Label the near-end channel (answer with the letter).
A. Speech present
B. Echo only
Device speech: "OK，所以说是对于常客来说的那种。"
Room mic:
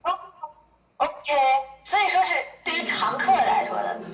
A